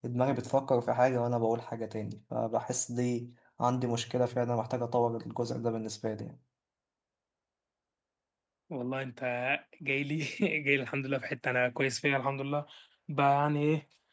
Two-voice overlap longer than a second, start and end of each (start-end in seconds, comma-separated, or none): none